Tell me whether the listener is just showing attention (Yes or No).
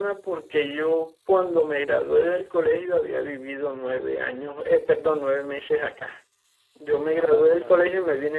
Yes